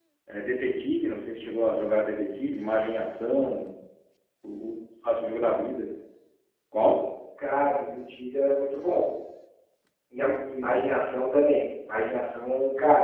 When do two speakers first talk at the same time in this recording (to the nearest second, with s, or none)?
none